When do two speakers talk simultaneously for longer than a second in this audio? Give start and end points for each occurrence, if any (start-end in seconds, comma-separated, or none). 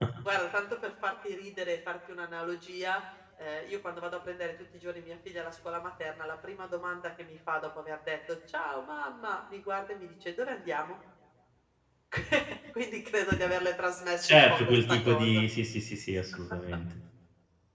14.2-15.4